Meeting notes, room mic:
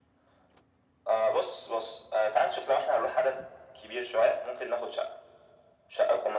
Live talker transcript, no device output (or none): none